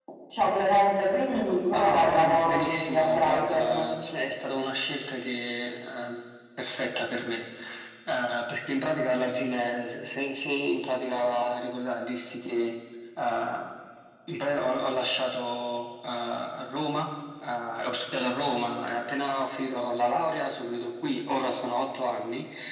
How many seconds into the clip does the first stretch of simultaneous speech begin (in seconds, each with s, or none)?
1.7 s